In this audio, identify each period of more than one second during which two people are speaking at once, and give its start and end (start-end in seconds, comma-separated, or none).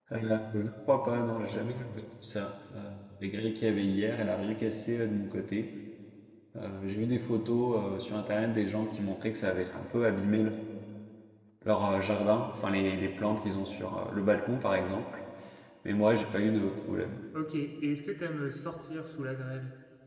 none